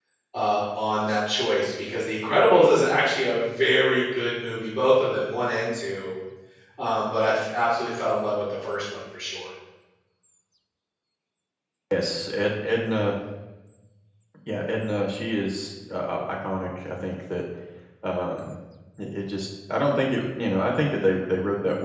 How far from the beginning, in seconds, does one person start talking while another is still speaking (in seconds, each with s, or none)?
none